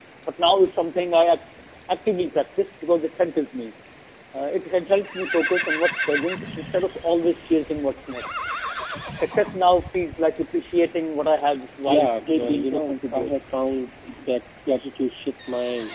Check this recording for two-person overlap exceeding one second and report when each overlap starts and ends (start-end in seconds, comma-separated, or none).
11.9-13.3